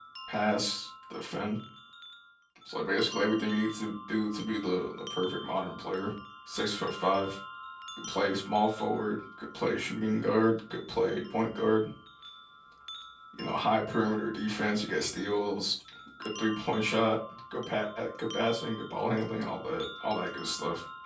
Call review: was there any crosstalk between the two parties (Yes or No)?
No